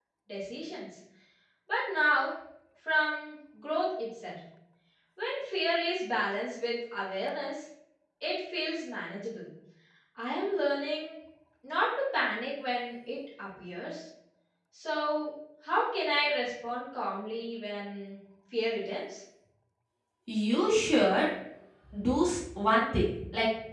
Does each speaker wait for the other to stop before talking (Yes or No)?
Yes